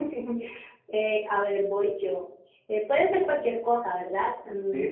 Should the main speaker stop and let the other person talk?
Yes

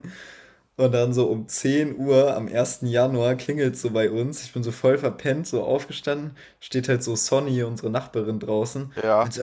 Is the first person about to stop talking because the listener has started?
No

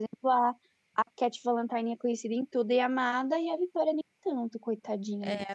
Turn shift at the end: Yes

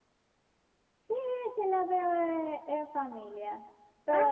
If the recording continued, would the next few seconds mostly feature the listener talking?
No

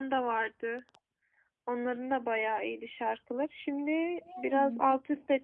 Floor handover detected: No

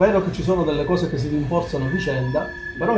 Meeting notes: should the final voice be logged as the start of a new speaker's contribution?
No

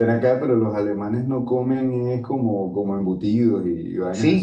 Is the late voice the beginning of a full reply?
Yes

